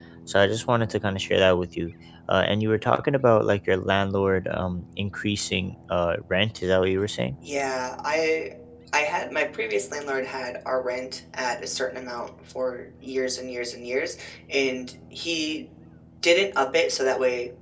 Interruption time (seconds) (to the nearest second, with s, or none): none